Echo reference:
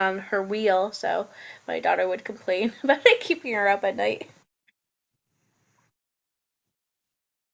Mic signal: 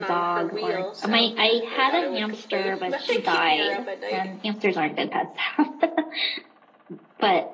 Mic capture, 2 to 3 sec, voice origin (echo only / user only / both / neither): both